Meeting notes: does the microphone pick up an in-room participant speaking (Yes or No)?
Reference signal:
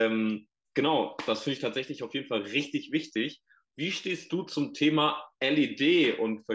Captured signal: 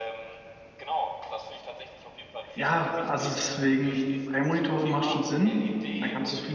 Yes